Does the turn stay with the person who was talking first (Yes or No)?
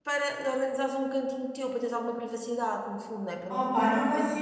No